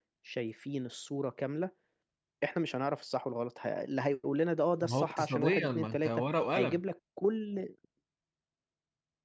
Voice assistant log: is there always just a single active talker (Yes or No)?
No